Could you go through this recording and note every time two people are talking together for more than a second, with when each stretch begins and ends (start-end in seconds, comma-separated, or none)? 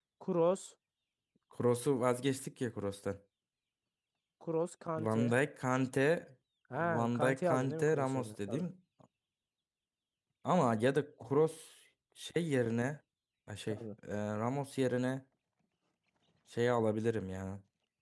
6.8-8.6